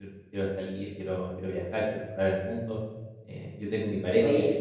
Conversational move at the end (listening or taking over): listening